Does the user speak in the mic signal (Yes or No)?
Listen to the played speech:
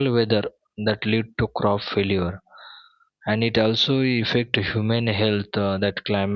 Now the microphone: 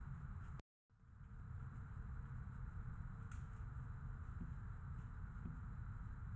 No